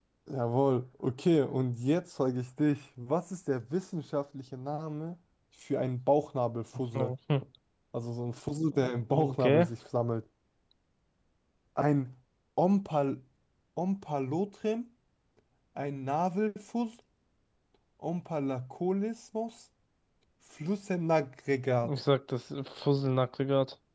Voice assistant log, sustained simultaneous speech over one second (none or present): none